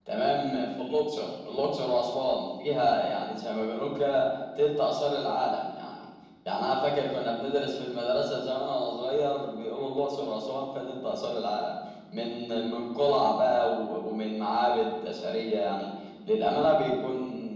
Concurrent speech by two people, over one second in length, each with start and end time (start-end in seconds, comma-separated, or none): none